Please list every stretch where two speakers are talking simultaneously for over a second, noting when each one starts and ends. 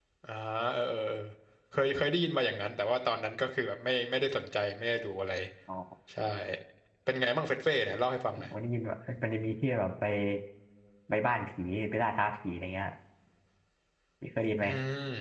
none

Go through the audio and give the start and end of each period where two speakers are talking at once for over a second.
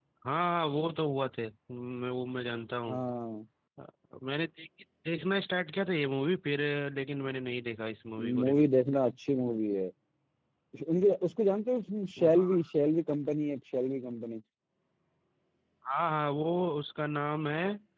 none

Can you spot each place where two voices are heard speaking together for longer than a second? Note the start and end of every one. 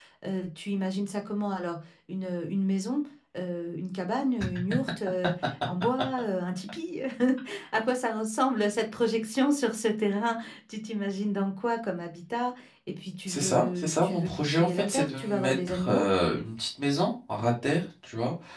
13.3-16.1

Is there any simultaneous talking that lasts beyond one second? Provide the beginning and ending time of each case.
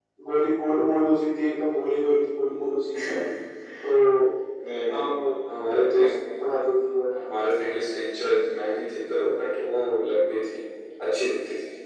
none

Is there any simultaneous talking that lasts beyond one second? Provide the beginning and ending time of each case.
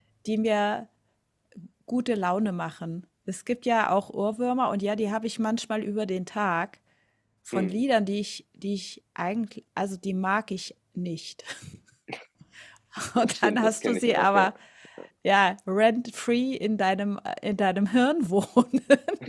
13.2-14.5

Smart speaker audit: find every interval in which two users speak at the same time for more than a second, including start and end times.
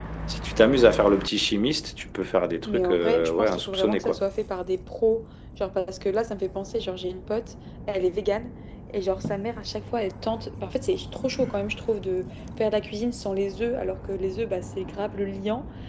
2.6-4.2

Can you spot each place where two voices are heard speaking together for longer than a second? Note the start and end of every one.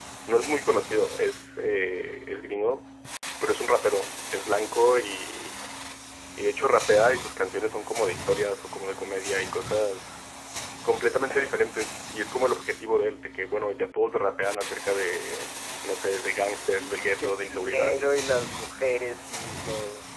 16.7-18.0

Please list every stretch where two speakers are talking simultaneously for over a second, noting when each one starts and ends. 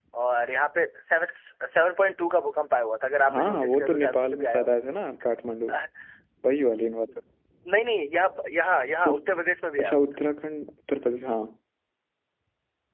3.3-4.7

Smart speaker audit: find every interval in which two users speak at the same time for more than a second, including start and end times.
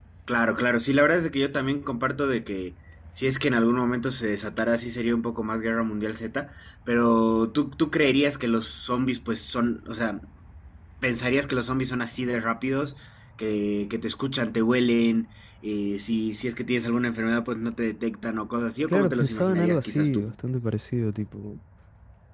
18.9-20.3

